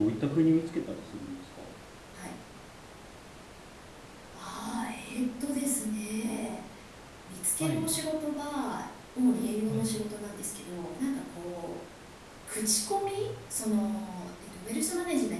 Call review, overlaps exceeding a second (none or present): none